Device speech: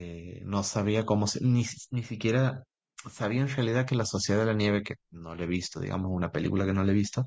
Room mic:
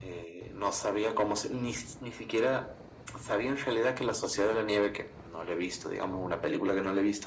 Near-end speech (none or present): none